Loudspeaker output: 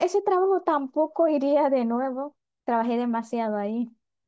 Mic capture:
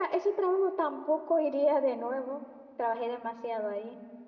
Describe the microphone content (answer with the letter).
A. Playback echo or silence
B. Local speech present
A